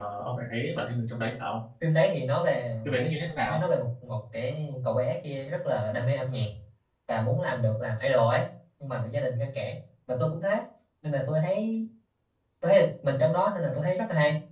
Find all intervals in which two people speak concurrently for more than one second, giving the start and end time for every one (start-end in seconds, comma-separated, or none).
none